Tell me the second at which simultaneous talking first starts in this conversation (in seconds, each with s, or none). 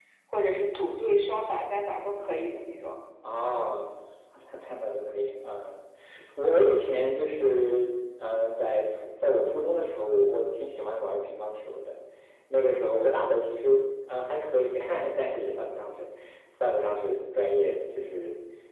none